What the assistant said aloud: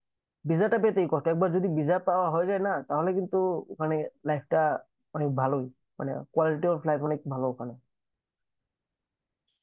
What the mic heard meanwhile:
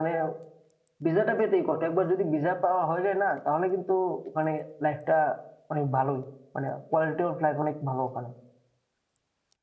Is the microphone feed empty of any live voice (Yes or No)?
Yes